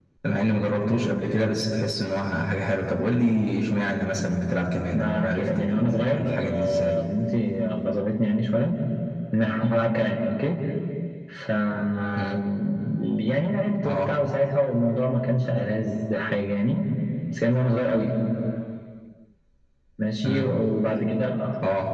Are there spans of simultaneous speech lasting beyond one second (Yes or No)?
Yes